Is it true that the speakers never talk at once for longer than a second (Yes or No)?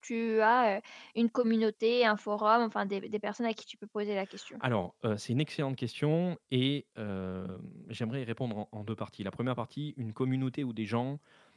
Yes